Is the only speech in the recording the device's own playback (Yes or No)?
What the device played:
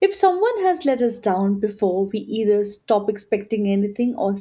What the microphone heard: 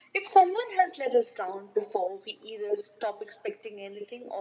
Yes